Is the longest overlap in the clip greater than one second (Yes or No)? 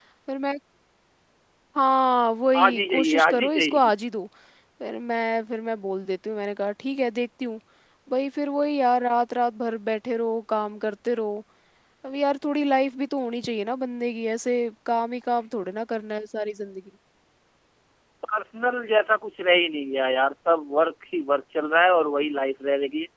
Yes